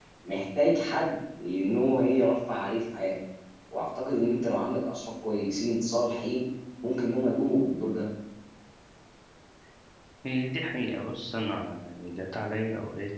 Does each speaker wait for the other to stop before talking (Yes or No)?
Yes